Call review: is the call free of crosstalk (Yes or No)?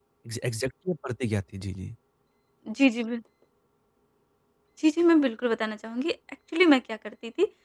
Yes